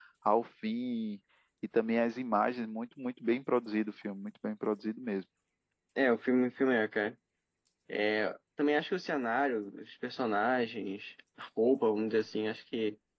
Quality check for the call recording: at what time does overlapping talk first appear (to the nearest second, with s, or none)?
none